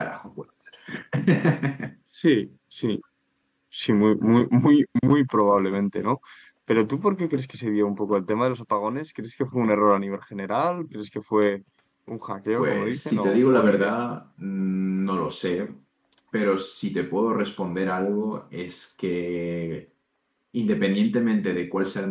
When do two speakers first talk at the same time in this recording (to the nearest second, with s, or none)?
13 s